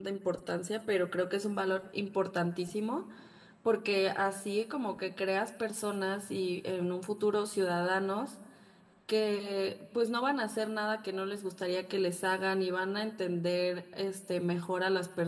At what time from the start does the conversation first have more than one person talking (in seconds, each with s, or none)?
none